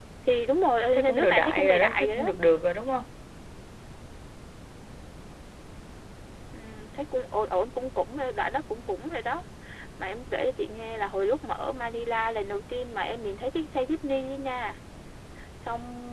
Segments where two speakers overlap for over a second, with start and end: 0.9-2.2

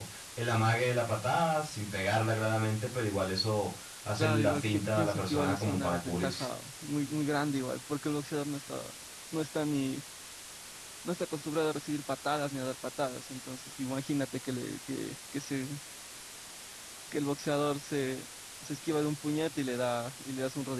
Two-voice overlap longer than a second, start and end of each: 4.2-6.5

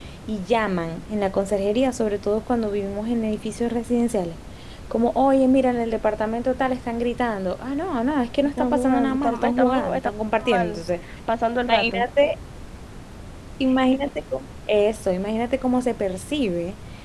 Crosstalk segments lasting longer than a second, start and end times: 8.4-10.8

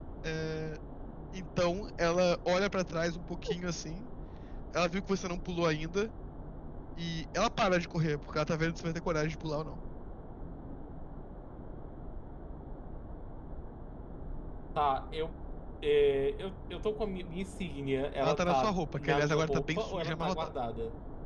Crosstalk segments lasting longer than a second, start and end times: 18.2-20.5

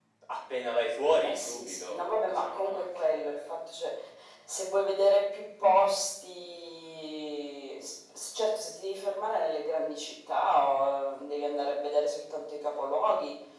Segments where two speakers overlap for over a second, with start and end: 1.2-3.1

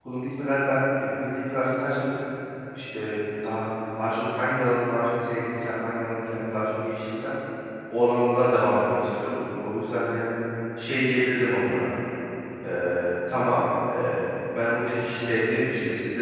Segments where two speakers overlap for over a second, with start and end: none

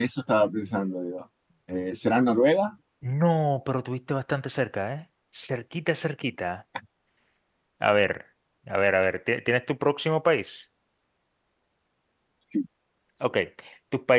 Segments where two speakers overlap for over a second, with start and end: none

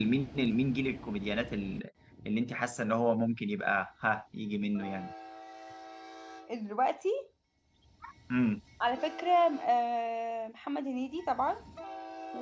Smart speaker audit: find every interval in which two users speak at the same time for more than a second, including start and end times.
none

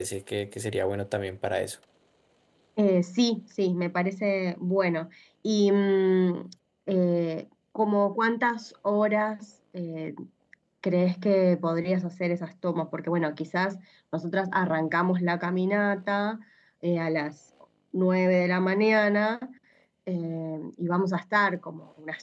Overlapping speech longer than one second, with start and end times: none

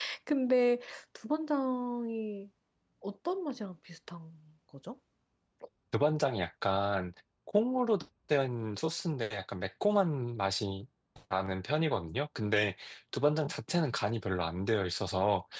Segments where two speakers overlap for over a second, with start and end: none

